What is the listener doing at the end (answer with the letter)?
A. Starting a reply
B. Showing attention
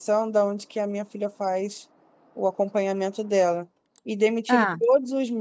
B